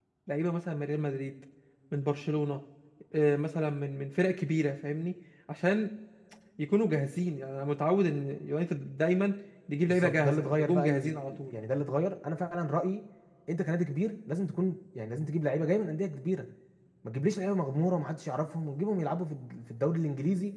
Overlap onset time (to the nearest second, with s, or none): 10 s